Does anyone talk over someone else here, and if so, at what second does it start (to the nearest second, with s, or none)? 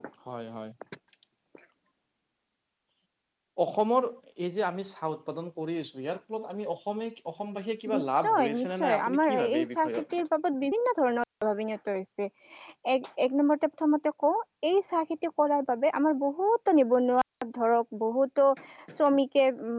8 s